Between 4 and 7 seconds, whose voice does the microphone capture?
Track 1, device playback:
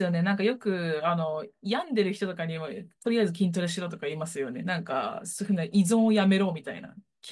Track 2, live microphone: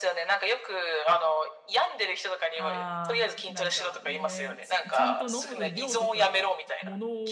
both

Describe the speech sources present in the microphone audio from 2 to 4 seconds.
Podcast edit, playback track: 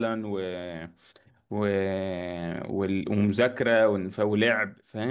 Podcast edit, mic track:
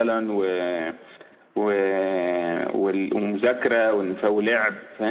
echo only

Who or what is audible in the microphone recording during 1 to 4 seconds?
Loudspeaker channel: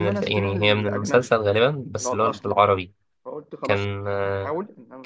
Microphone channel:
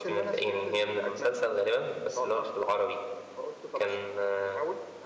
echo only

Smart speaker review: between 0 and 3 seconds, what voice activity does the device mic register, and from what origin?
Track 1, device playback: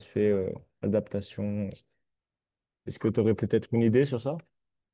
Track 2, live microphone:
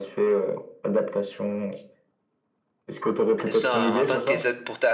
echo only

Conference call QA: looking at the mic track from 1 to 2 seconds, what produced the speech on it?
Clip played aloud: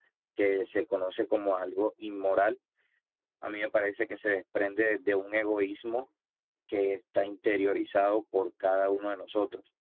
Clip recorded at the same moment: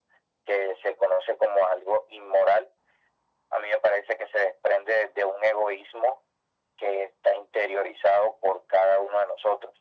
echo only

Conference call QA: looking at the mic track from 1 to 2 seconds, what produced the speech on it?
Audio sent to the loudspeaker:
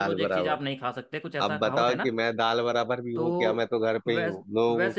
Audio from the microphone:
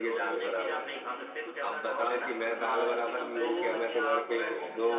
echo only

